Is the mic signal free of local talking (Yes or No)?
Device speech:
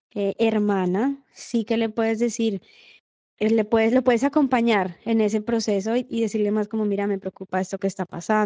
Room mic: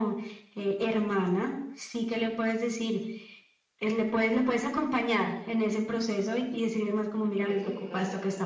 No